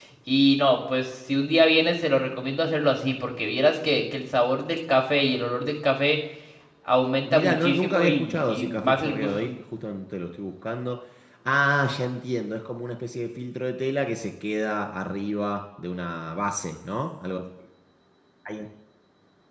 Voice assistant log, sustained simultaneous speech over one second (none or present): present